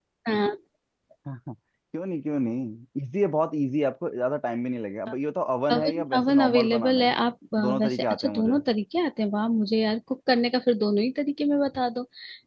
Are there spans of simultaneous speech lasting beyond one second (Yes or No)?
Yes